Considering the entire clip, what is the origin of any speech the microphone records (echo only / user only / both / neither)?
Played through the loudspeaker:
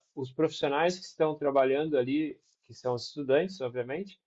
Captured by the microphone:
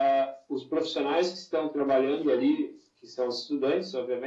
both